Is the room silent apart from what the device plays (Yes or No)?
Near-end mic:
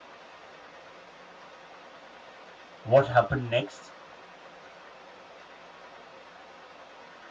No